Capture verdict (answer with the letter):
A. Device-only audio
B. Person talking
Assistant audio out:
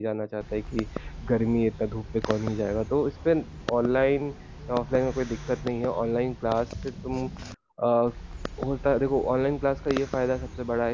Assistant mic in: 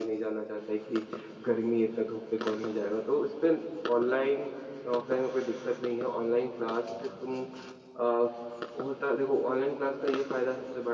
A